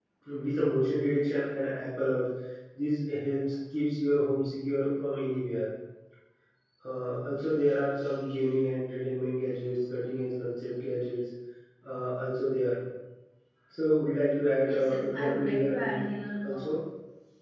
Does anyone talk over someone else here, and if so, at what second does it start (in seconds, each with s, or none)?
14.6 s